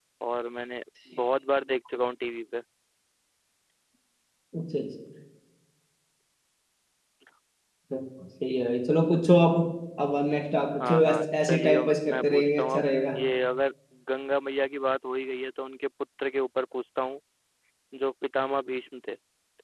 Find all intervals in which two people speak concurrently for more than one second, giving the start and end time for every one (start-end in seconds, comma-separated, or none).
10.8-13.2